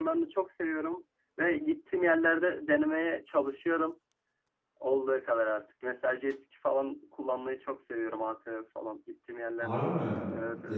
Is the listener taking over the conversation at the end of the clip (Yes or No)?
Yes